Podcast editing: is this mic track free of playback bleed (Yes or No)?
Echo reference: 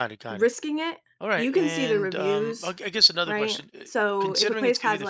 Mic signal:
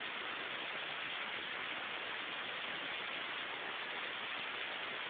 Yes